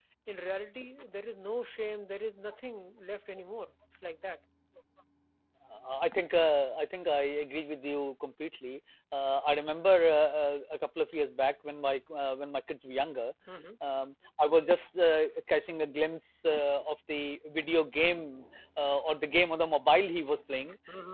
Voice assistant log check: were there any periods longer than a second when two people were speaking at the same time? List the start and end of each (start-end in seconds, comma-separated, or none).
none